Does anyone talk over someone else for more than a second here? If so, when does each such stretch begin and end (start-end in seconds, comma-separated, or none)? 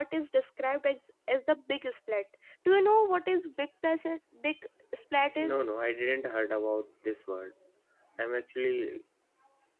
none